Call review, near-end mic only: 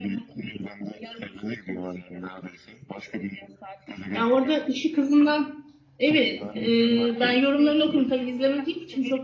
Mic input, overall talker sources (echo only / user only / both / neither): both